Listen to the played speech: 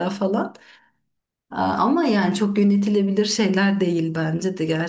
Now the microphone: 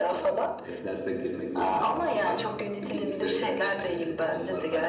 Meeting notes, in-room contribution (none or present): present